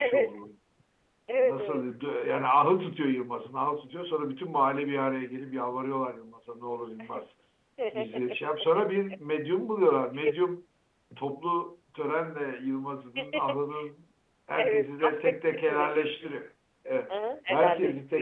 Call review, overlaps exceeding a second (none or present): present